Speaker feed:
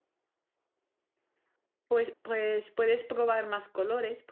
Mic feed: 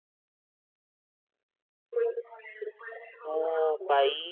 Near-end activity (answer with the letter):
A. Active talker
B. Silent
A